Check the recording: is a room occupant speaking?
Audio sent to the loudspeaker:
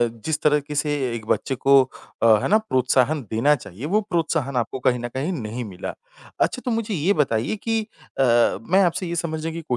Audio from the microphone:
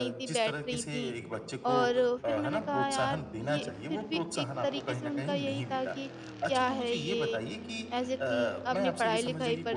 Yes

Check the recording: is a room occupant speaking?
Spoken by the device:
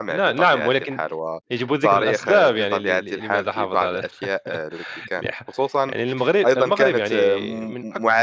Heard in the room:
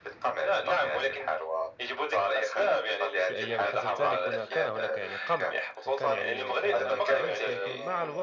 Yes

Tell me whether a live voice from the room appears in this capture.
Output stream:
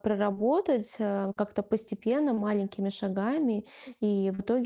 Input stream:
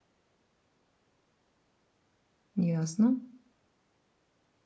Yes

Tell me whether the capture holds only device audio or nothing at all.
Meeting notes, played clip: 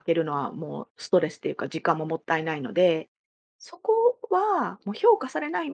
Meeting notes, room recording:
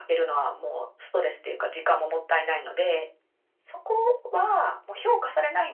Yes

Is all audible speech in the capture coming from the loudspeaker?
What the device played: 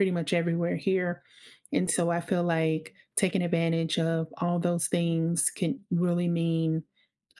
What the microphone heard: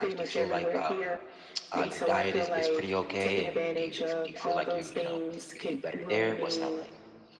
No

